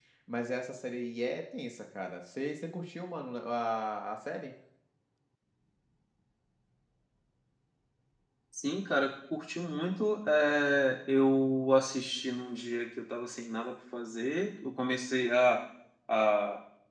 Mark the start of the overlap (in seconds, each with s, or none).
none